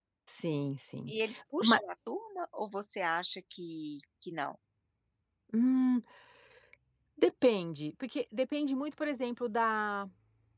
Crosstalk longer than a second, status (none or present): none